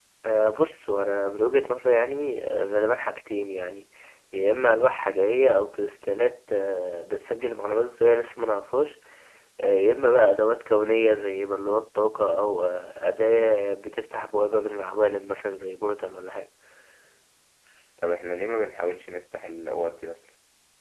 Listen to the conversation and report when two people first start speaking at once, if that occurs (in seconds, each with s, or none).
none